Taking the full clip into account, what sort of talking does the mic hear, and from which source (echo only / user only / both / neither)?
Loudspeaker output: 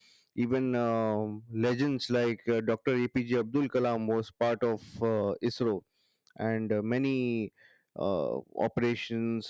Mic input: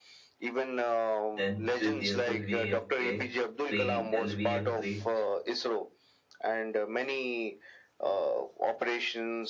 both